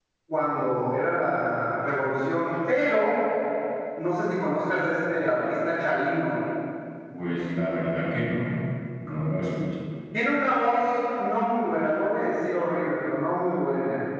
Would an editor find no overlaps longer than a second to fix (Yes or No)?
Yes